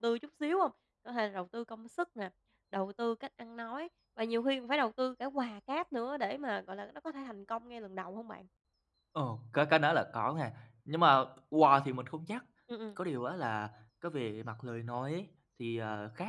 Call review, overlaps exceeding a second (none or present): none